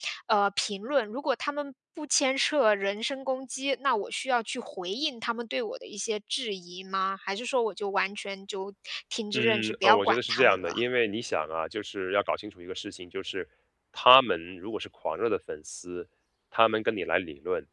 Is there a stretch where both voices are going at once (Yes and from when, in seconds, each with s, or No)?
Yes, from 9.3 s